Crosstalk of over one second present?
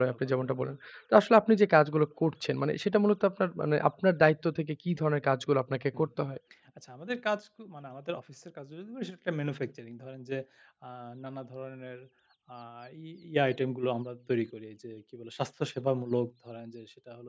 No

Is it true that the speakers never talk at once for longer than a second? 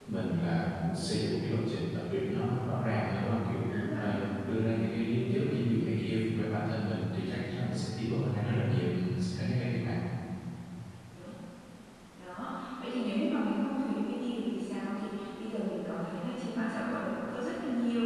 Yes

